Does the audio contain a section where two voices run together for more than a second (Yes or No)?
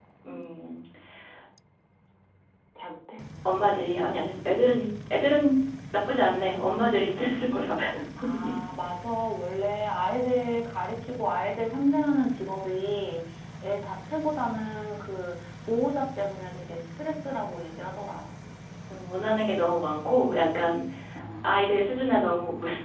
No